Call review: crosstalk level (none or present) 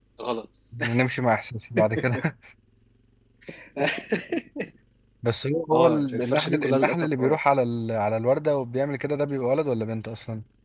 present